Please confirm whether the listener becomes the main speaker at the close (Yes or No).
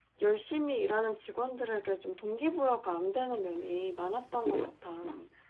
Yes